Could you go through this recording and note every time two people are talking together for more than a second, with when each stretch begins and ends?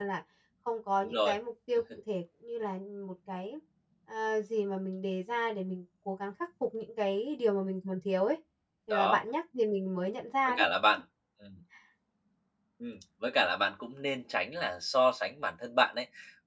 none

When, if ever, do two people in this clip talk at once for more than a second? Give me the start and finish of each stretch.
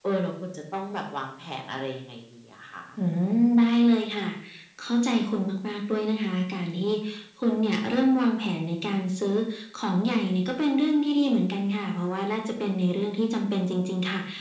none

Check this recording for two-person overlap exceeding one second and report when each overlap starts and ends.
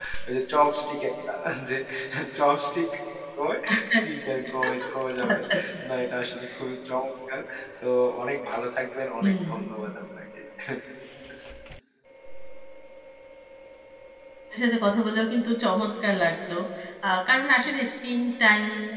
none

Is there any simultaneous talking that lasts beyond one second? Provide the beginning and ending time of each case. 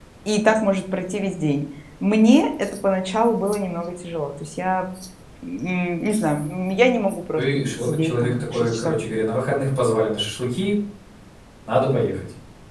7.3-8.9

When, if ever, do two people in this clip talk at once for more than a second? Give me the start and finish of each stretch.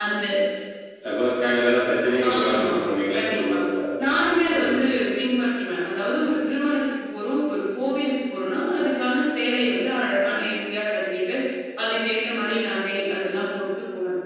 none

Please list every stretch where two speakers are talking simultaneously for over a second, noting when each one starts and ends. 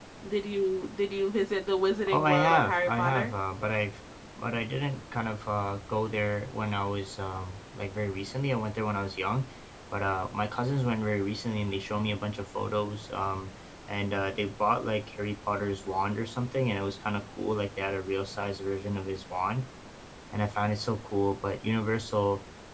2.1-3.3

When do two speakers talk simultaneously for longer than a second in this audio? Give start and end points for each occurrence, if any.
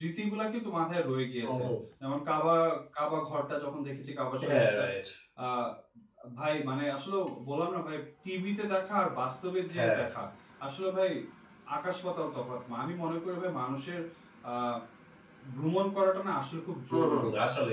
none

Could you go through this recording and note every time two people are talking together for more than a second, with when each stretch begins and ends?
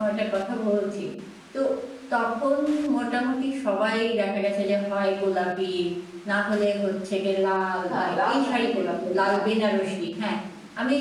7.9-9.4

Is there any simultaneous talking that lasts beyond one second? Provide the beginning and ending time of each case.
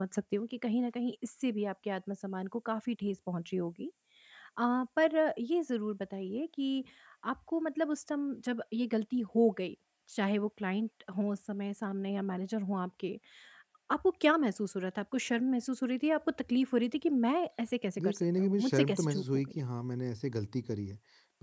18.0-19.5

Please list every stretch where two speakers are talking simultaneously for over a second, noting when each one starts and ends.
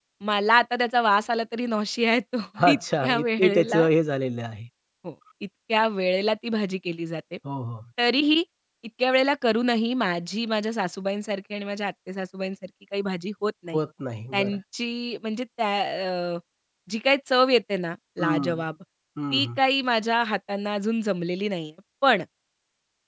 2.7-3.9

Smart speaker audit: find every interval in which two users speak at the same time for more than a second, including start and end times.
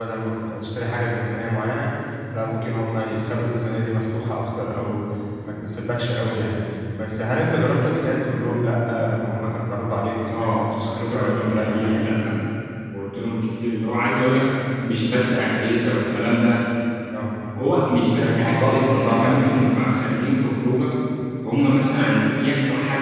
10.2-12.0, 18.2-19.6

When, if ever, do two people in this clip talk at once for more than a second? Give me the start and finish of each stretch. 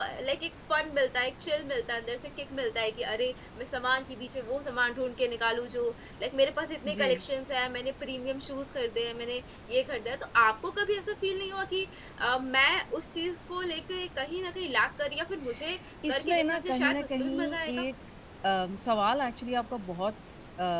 16.1-17.8

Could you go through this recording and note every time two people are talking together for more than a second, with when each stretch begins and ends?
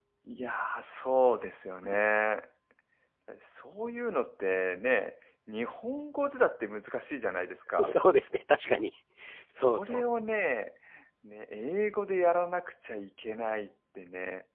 none

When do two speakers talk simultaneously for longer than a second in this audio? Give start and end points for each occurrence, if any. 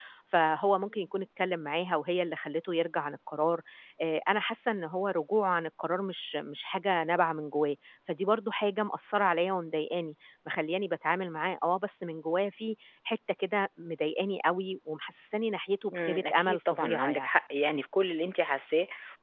15.9-17.3

